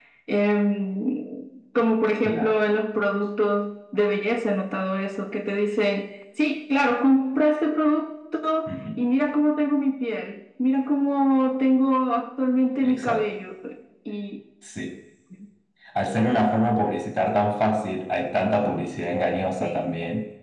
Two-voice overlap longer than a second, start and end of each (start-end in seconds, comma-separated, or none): none